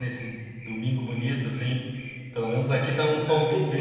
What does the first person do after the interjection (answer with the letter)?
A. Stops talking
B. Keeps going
A